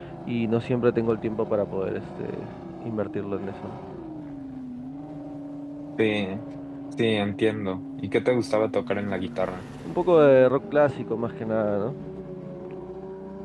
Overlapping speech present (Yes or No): No